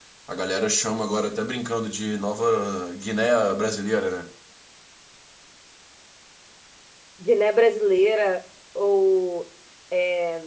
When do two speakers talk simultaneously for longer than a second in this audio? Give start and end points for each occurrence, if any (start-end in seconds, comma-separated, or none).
none